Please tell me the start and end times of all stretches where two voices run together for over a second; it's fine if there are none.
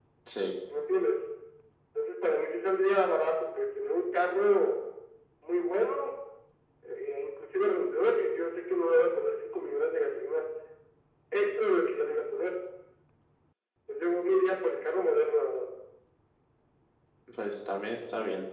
none

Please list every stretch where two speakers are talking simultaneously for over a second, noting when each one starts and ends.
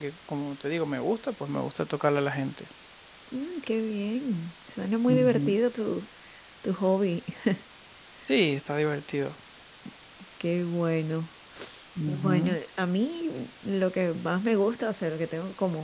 none

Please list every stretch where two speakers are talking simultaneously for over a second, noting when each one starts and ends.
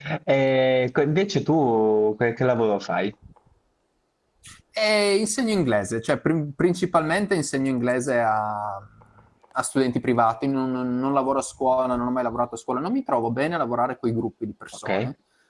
none

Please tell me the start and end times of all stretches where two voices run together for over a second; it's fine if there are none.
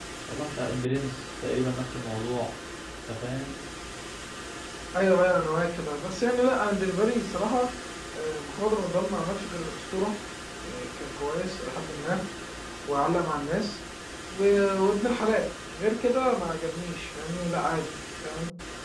none

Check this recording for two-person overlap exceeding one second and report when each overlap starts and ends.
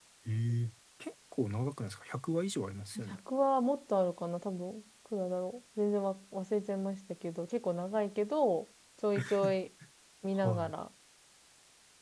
none

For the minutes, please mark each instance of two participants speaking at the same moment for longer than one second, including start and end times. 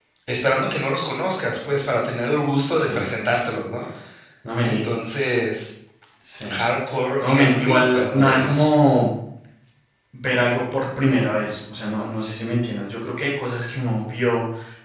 7.2-8.7

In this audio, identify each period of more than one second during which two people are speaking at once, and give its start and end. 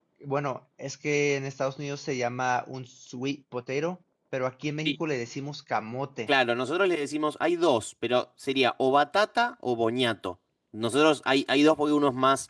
none

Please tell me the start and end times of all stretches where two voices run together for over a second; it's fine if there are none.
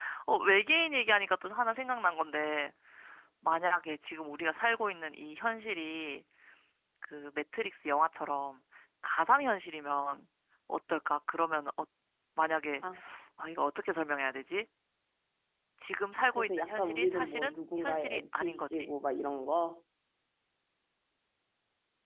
16.3-18.9

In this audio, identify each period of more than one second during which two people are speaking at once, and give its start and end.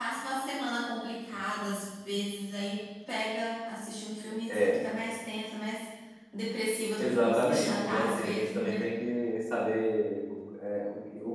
7.0-8.9

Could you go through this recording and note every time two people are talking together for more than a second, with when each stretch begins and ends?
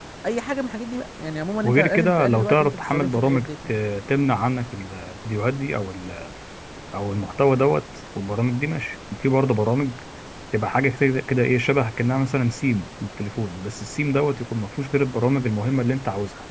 1.6-3.8

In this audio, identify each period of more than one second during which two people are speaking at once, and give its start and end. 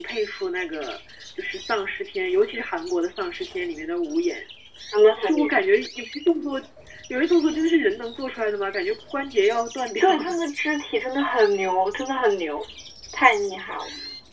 none

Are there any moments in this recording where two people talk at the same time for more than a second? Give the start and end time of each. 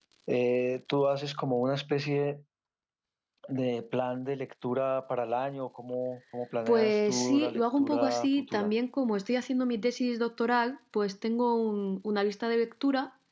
6.7-8.7

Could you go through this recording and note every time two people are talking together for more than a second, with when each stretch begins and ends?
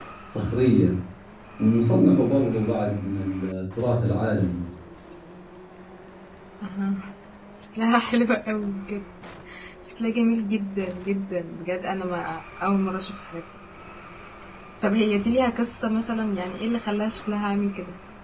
none

